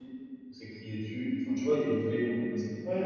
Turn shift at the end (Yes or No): Yes